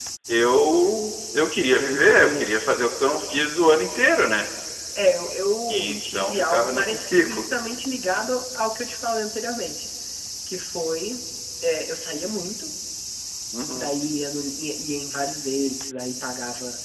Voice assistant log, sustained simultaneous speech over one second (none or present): present